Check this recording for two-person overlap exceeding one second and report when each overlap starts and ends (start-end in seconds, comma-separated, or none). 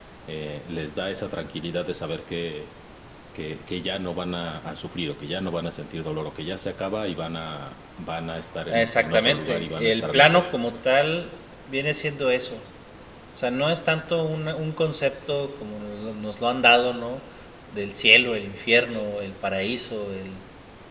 8.7-10.5